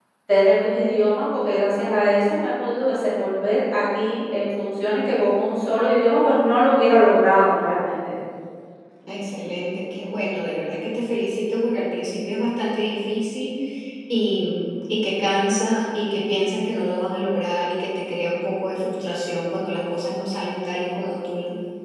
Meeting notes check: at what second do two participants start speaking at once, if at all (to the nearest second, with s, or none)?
none